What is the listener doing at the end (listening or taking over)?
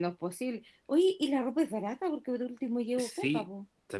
taking over